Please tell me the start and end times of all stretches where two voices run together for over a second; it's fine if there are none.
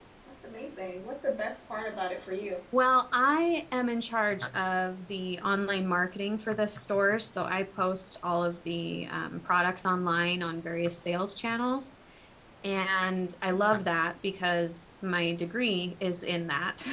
none

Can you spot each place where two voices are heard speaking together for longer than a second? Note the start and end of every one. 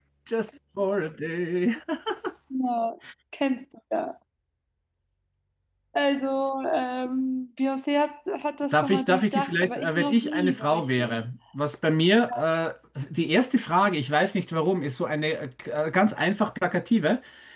8.7-11.2

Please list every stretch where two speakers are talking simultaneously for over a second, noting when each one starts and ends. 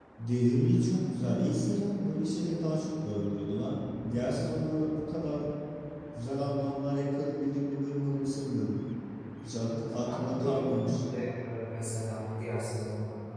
9.6-11.0

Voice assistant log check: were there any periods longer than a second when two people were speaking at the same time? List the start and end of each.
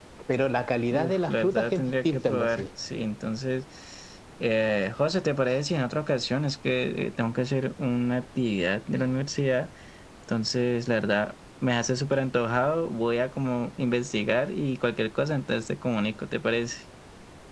0.9-2.6

